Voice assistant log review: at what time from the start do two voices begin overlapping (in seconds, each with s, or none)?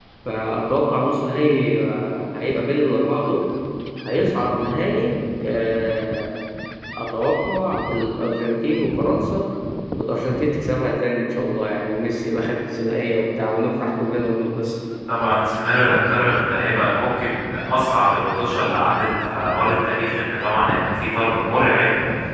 none